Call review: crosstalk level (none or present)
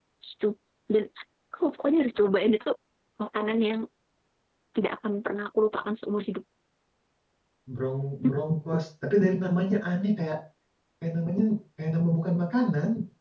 none